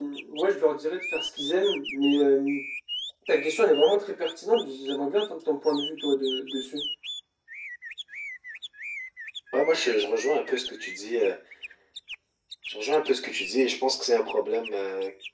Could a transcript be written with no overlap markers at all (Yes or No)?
Yes